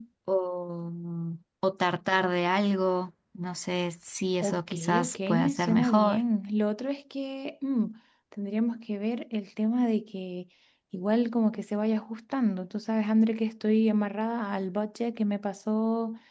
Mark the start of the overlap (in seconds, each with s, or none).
4.4 s